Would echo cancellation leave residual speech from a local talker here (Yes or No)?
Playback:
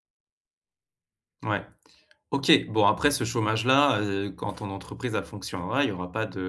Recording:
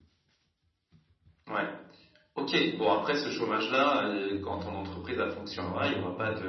Yes